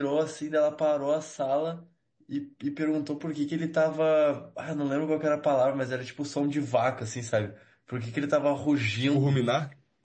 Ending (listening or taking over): listening